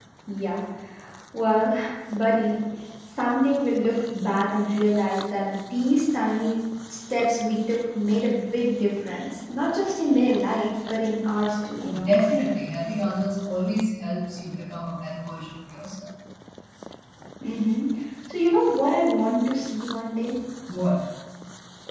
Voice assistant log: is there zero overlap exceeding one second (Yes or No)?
Yes